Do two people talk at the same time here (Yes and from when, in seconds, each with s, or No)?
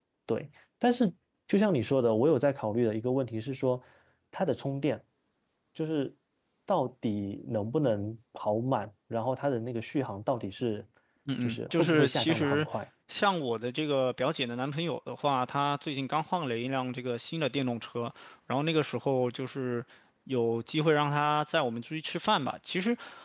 Yes, from 11.4 s